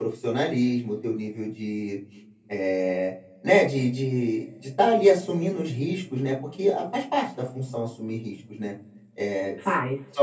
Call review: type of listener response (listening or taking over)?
listening